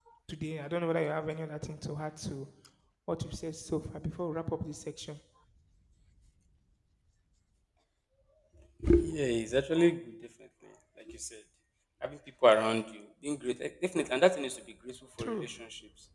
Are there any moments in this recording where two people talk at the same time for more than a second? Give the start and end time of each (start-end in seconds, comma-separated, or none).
none